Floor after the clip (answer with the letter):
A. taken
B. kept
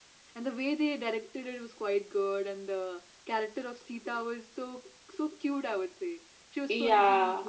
A